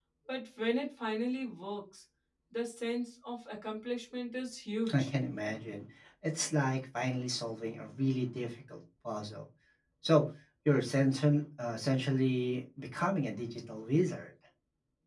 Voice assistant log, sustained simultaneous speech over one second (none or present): none